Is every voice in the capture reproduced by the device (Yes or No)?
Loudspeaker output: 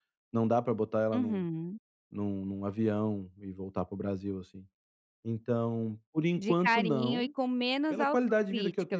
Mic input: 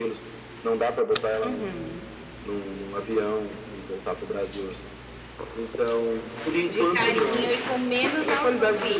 Yes